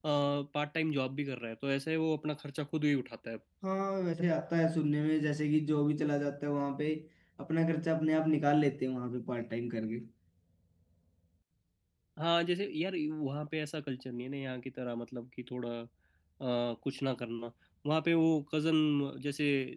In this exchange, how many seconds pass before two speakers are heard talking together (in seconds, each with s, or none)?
none